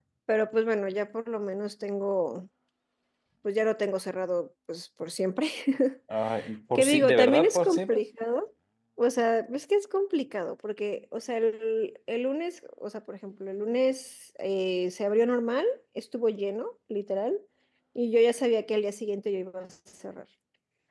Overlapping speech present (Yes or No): Yes